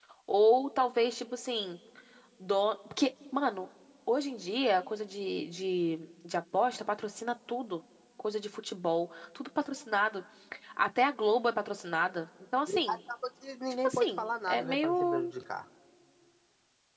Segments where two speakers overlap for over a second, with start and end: 13.8-15.3

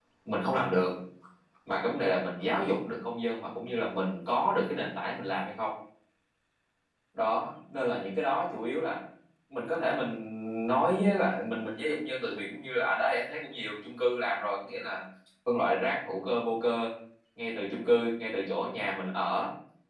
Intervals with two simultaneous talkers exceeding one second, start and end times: none

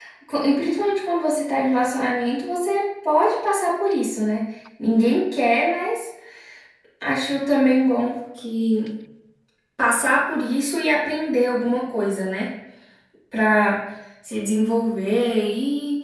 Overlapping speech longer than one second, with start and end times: none

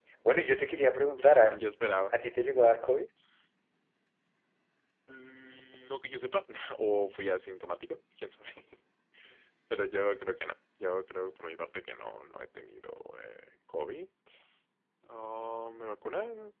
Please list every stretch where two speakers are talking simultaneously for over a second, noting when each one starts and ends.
none

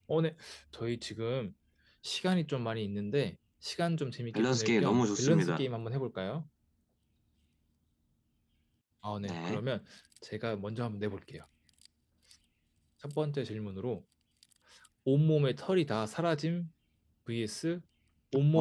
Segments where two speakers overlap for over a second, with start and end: 4.3-5.6

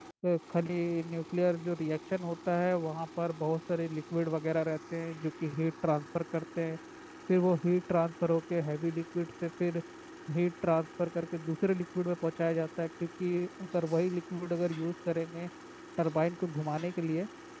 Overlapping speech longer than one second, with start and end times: none

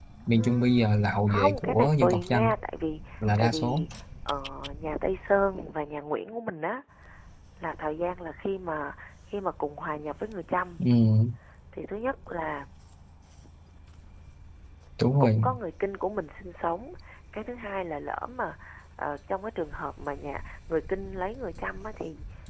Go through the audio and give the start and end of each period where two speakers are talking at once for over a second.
1.3-2.5

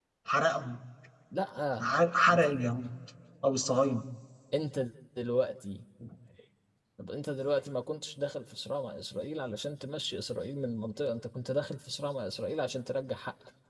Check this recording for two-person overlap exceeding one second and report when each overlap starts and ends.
none

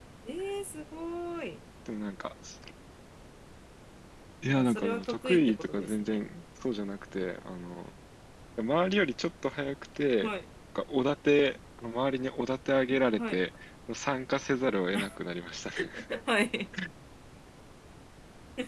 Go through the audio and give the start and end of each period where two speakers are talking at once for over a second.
4.5-6.2

